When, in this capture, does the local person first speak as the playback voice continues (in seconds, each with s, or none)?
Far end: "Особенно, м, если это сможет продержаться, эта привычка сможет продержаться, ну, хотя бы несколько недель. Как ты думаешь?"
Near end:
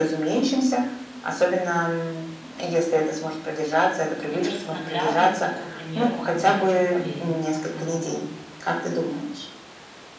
4.3 s